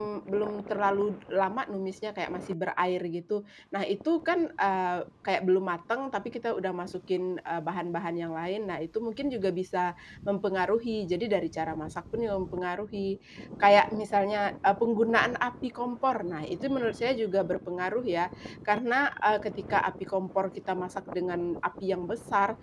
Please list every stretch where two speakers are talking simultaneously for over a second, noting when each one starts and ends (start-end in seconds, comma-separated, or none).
none